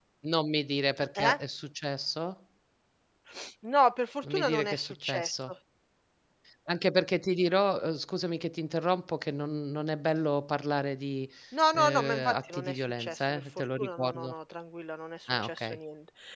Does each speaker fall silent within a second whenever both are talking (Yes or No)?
No